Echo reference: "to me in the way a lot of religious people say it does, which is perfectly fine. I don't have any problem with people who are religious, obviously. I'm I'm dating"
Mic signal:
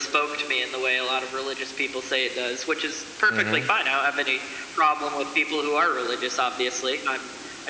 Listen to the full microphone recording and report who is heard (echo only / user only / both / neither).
both